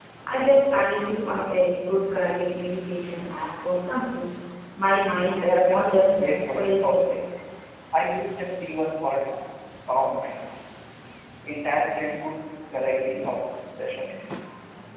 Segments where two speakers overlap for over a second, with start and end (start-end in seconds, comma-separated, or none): 5.4-7.0